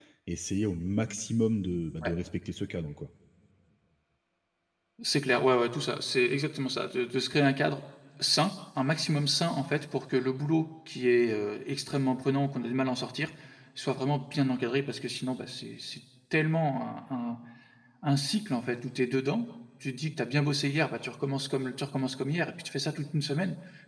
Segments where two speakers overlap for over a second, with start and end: none

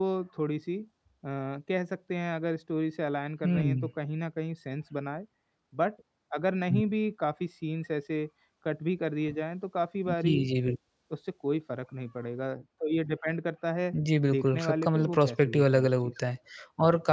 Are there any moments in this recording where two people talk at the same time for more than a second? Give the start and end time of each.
14.3-16.1

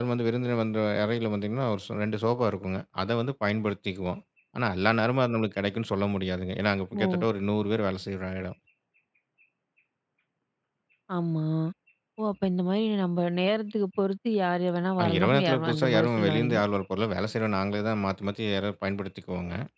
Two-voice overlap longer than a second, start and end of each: 15.0-16.6

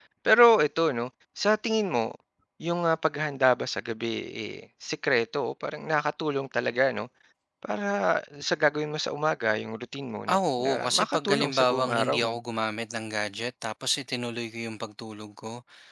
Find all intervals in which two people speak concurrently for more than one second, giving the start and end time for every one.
10.3-12.3

